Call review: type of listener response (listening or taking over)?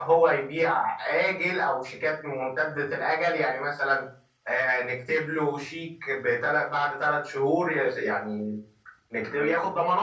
listening